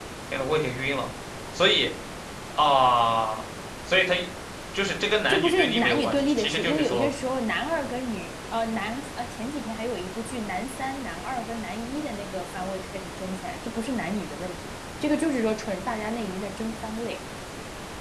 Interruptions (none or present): present